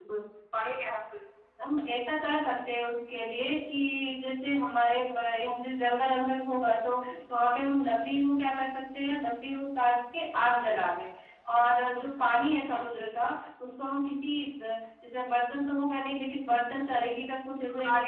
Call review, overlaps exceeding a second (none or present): none